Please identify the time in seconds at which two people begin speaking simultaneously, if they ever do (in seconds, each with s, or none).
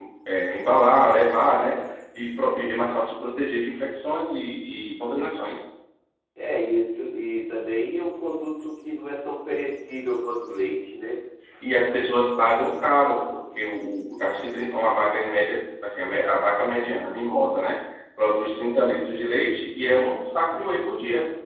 none